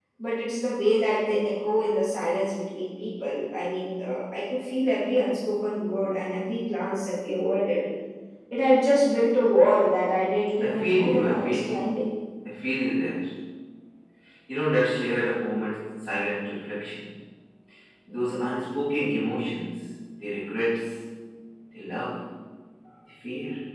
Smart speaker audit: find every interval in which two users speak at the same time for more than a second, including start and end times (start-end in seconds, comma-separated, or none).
10.6-11.9